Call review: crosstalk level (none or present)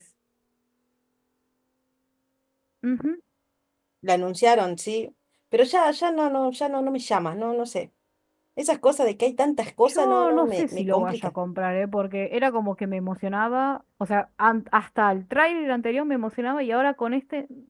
present